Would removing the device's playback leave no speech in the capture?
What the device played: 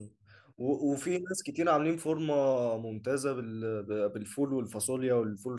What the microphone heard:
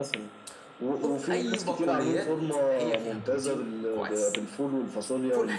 No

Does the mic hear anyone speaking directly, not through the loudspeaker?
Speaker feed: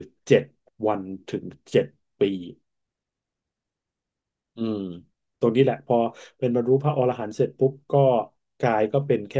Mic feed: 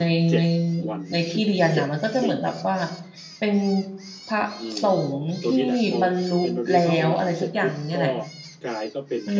Yes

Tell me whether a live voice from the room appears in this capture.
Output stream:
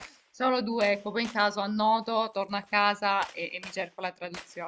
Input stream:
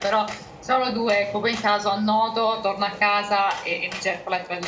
No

